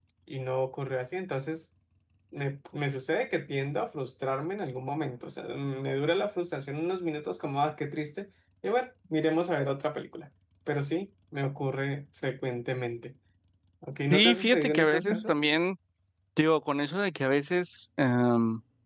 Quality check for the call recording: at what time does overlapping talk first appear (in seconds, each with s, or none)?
14.1 s